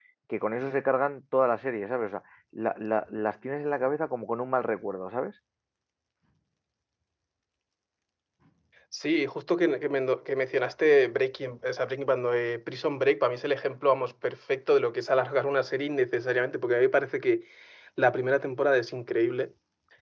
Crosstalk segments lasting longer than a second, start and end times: none

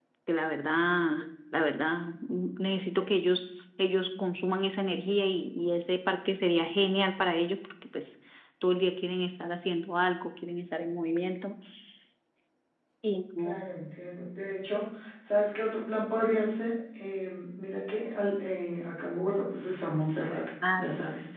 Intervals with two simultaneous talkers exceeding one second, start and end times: none

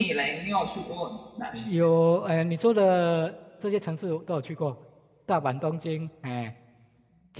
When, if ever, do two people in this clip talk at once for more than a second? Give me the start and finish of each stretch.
none

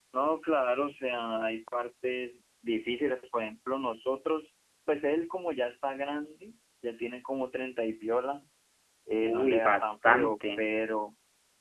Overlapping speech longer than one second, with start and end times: 9.2-10.7

